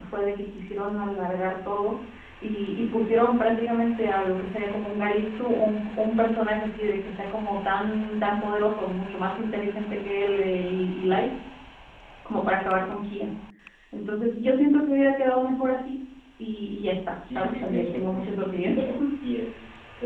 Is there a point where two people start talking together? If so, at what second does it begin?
17.2 s

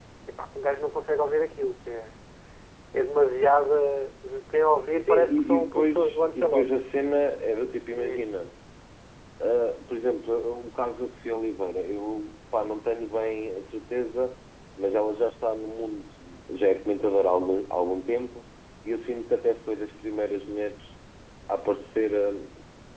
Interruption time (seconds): 5.1 s

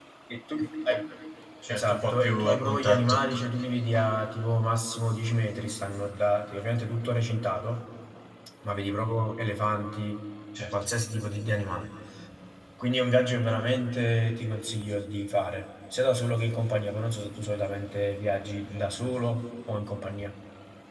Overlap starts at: 1.7 s

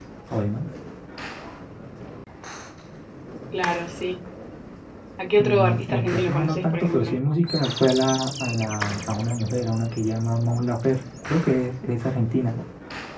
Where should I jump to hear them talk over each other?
5.4 s

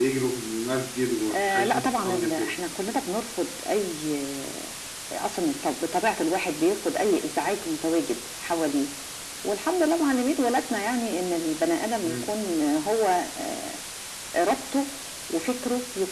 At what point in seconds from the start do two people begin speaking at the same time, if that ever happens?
1.3 s

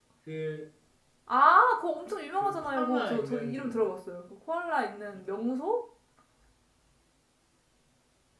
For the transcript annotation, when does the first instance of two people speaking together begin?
2.3 s

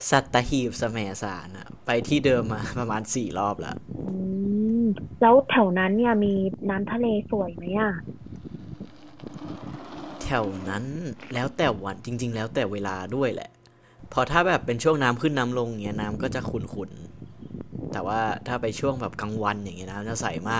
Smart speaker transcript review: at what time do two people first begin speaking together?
none

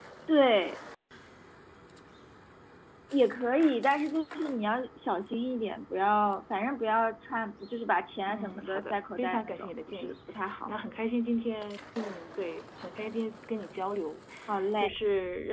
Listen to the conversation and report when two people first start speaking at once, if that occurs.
8.3 s

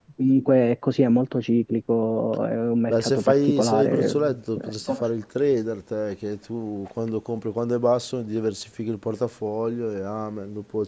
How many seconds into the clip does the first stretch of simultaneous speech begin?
2.9 s

